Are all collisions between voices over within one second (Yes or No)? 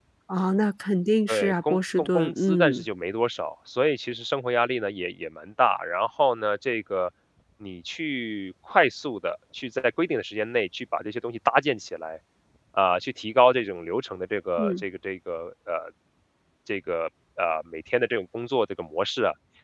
No